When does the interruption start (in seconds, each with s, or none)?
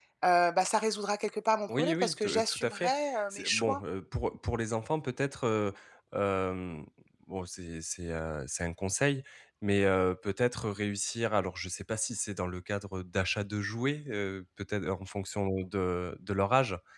1.7 s